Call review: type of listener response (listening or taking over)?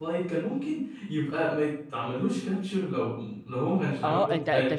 taking over